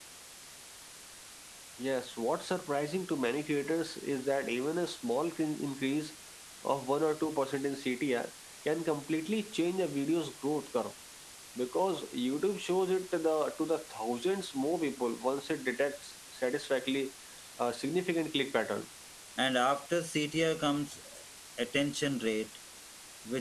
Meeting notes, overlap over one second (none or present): none